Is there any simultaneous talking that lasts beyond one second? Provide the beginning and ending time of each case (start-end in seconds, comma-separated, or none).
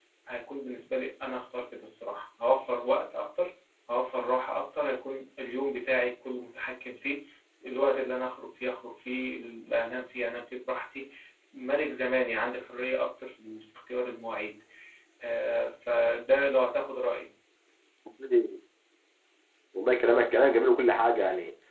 none